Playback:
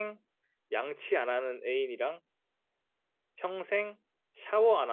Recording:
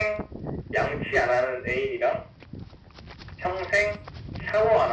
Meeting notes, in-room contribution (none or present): none